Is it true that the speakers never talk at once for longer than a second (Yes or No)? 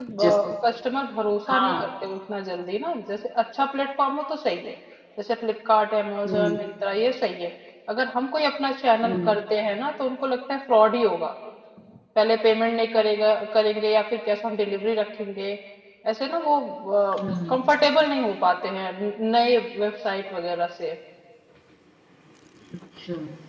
Yes